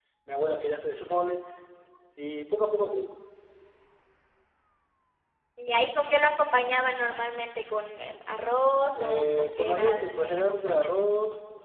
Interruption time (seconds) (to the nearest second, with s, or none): 9 s